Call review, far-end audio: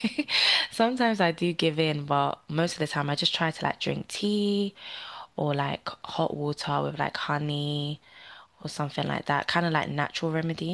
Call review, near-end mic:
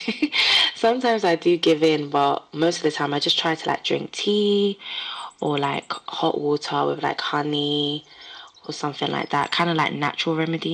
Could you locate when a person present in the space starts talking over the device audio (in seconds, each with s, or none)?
none